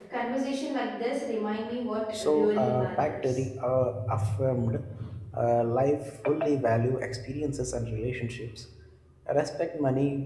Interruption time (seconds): 2.1 s

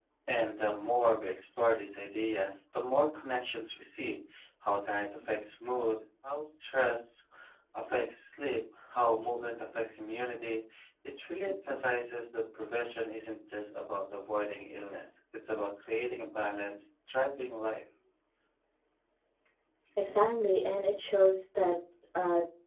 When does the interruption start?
none

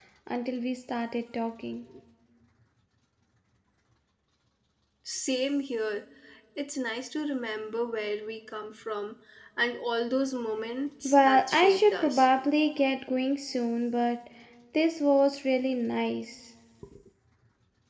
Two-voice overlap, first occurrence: 11.0 s

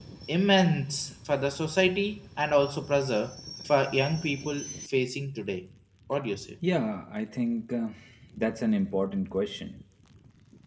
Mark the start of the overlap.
none

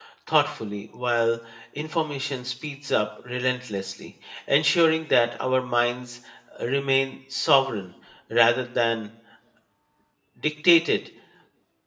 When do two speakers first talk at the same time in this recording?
none

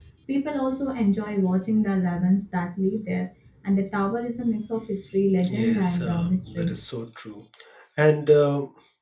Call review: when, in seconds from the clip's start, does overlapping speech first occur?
5.4 s

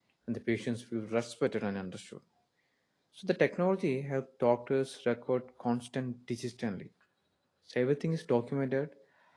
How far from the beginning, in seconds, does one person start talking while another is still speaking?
none

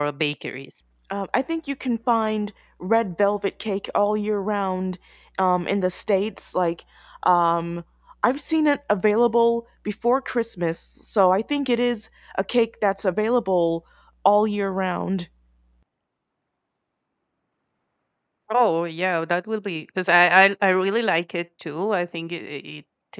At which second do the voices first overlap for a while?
none

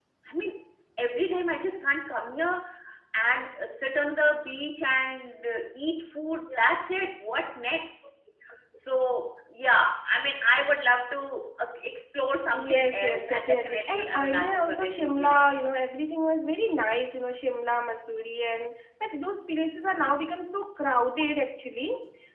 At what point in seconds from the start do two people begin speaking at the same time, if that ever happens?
12.5 s

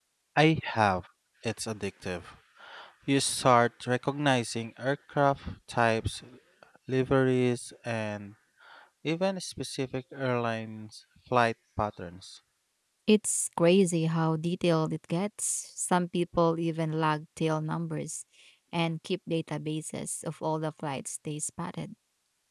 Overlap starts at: none

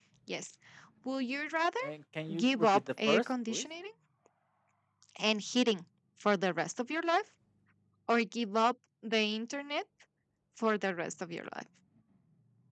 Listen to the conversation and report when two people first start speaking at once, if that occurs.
2.3 s

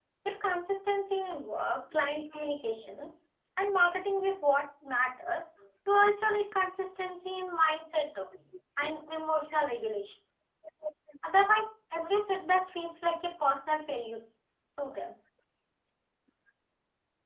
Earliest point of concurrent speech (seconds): none

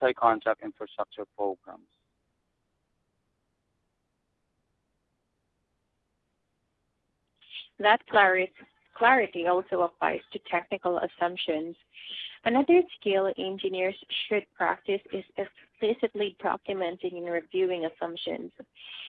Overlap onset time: none

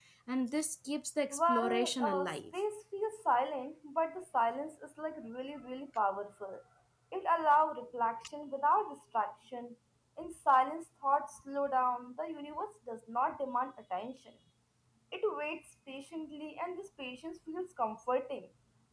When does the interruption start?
1.3 s

